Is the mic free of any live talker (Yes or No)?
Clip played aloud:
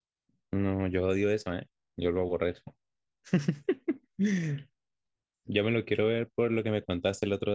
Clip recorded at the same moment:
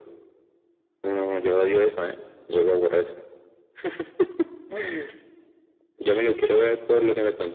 Yes